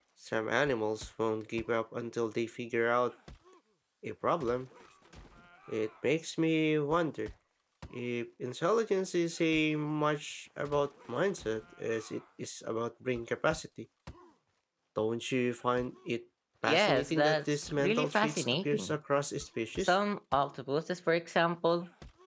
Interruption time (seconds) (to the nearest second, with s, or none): 17 s